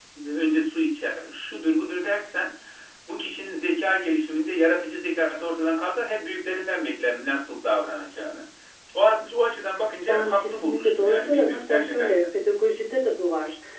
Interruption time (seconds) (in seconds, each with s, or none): 10.1 s